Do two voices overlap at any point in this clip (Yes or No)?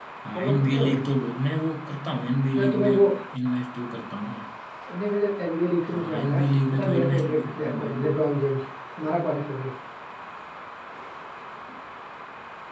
Yes